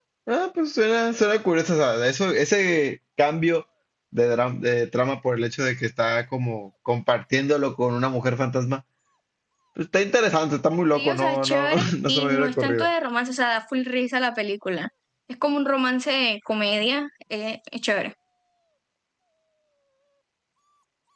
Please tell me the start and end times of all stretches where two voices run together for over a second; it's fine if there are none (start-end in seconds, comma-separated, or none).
10.9-12.9